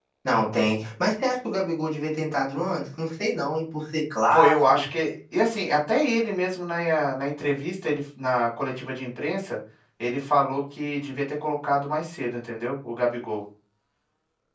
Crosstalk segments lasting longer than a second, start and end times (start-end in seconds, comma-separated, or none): none